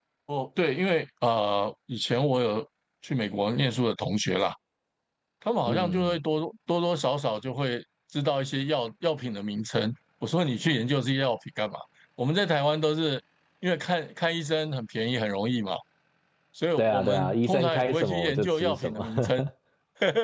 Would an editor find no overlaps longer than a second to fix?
No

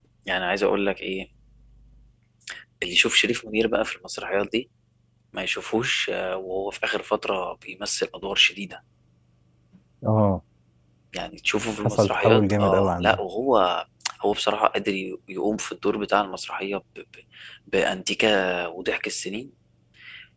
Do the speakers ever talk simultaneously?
Yes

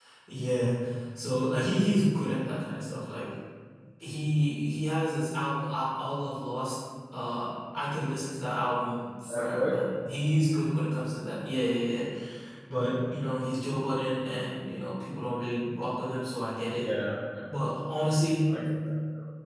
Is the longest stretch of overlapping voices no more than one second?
Yes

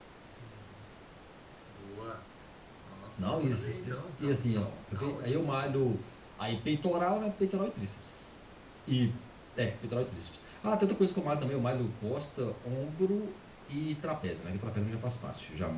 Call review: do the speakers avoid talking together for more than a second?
No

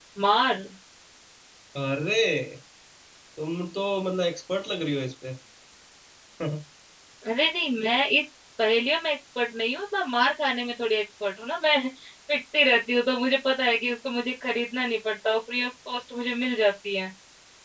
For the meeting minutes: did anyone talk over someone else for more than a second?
No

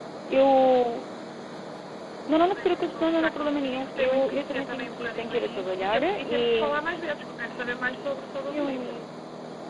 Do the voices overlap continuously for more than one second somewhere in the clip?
Yes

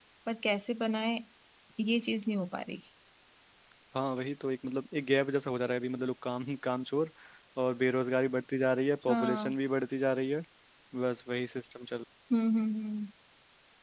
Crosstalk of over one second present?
No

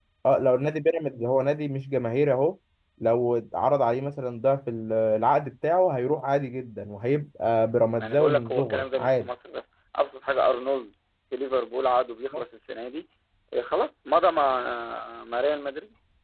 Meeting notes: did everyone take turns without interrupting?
No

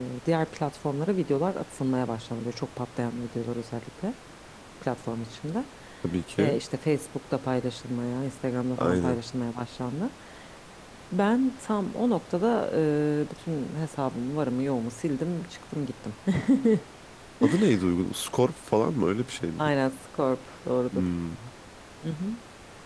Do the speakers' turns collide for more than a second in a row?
No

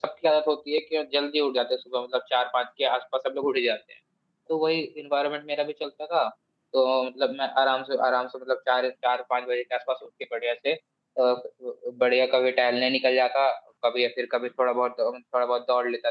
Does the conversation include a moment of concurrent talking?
No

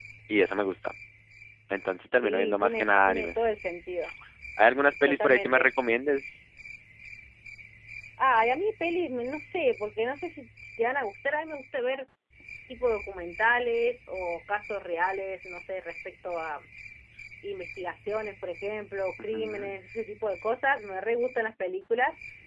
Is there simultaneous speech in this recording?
Yes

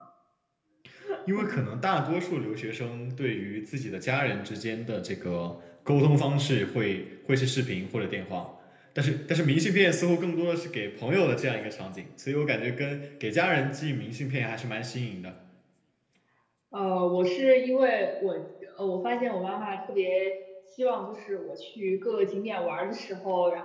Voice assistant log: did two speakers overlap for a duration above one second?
No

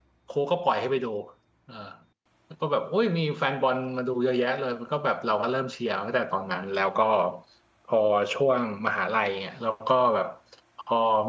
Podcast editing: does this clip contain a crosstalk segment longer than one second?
No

